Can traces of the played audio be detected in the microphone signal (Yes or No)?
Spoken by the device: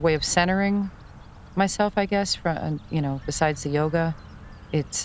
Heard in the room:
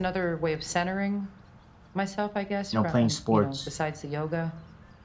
Yes